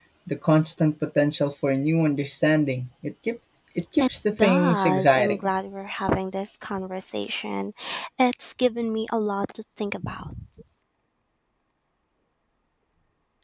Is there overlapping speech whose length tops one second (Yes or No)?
Yes